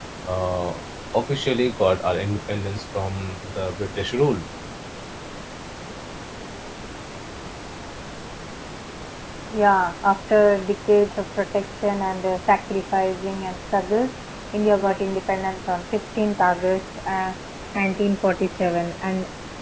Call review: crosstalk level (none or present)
none